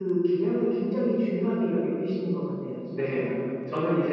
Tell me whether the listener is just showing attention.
No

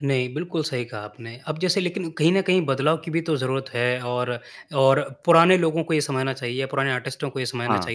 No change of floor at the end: Yes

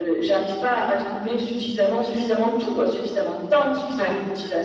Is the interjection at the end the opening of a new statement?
No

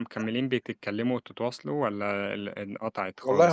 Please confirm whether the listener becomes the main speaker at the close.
Yes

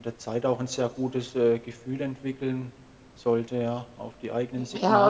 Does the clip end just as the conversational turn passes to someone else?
Yes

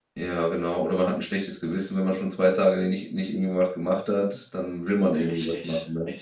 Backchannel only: No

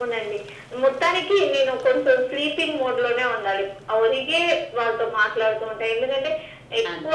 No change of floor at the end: Yes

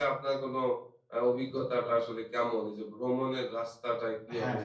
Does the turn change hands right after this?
Yes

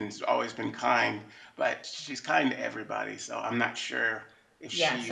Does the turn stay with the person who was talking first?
No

